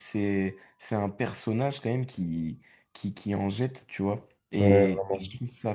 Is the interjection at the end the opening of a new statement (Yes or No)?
No